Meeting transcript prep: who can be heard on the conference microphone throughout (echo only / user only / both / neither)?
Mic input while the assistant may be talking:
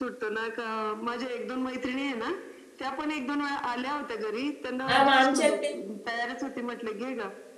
both